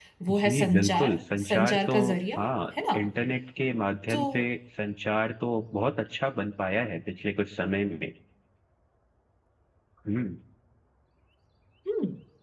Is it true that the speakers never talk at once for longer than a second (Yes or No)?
No